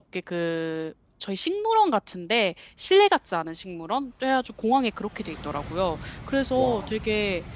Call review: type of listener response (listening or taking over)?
listening